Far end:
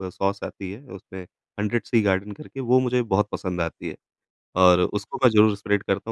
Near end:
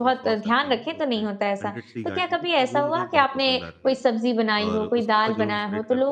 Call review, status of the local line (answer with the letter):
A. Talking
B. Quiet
A